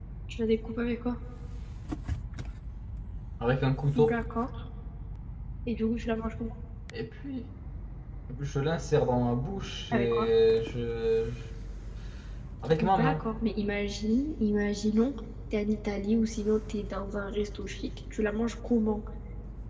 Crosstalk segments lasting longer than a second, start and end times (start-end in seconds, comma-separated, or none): none